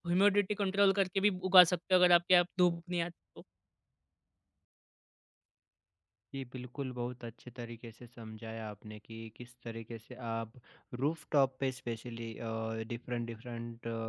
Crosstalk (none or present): none